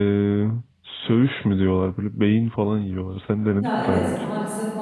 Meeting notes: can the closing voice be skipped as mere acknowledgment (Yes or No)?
No